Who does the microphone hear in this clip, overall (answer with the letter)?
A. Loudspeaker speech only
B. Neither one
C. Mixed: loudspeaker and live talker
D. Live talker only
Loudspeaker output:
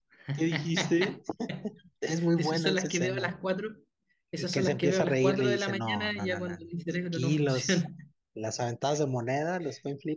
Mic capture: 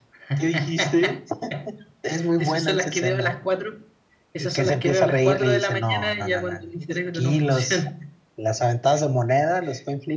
A